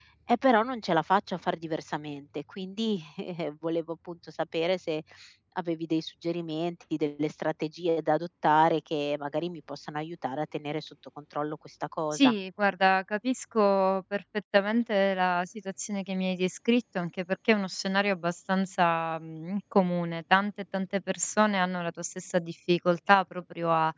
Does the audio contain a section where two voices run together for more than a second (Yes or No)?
No